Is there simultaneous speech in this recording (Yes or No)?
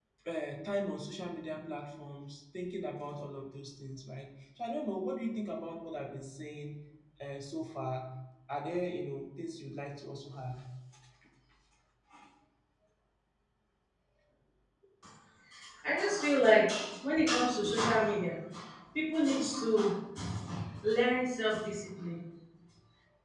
No